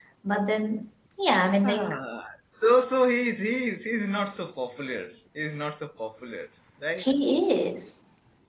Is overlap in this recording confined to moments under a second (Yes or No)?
Yes